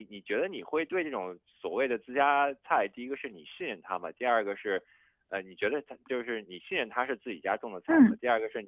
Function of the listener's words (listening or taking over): listening